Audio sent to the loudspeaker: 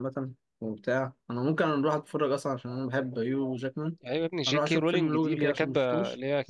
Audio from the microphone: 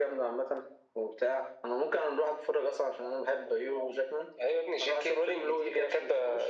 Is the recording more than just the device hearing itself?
No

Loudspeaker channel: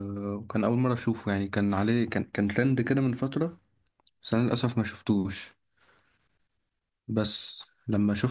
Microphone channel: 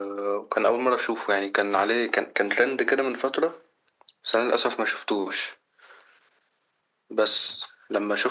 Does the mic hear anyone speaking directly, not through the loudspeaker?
No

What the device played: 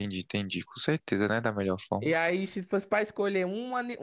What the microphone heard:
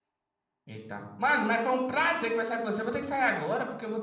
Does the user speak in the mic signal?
Yes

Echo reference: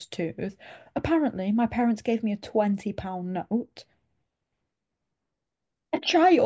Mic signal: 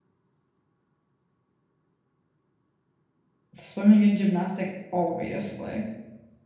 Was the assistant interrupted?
Yes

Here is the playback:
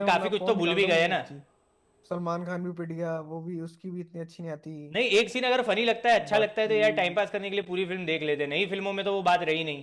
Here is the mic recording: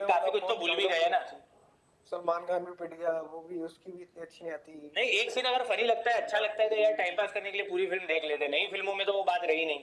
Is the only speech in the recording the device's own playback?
Yes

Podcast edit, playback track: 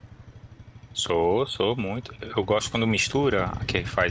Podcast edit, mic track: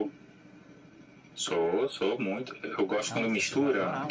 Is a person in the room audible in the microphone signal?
Yes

